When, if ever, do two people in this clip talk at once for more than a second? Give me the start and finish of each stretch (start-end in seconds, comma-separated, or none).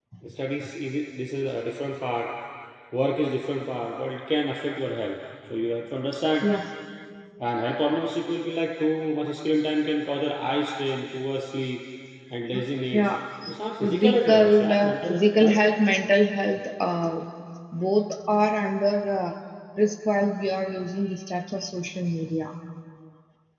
13.8-15.6